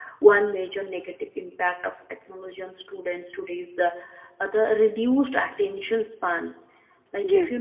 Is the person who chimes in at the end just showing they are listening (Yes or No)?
Yes